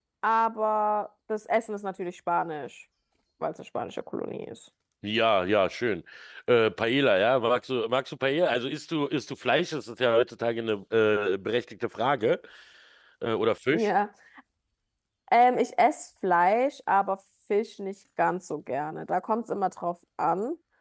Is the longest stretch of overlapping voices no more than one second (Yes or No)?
Yes